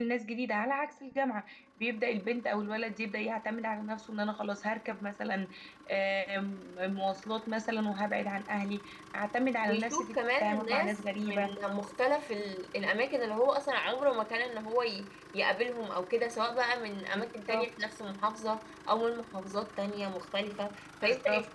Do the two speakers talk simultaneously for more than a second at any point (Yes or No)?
Yes